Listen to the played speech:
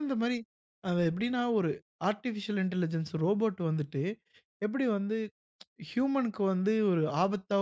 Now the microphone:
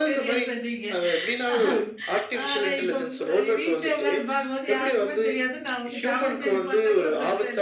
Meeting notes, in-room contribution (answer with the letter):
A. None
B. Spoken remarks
B